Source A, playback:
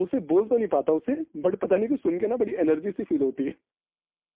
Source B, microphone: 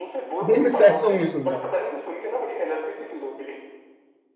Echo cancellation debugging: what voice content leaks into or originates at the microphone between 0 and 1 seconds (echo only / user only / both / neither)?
both